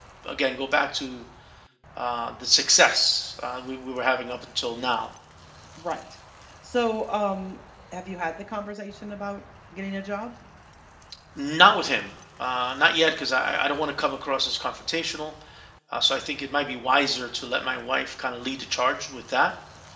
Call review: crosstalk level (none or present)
none